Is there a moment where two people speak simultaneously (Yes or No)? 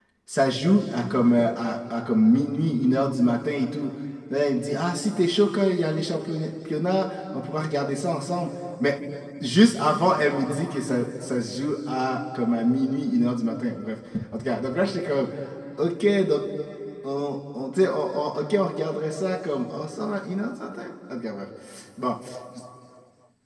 No